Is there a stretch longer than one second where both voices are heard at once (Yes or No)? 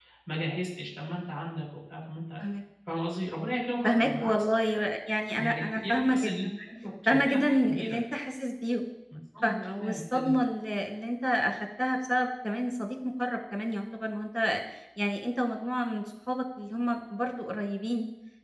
Yes